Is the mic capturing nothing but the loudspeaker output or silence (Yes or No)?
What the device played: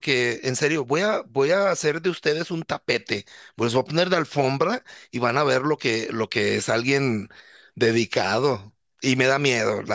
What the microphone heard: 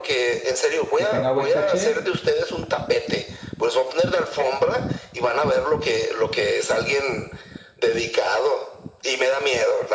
No